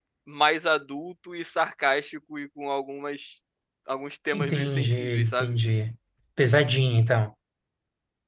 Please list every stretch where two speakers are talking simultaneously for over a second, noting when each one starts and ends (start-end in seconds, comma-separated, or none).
4.3-5.5